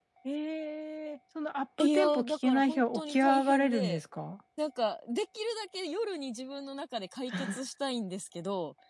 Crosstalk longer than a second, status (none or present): present